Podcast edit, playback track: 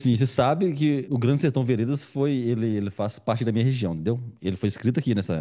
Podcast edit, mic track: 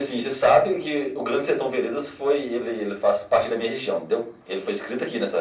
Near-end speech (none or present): none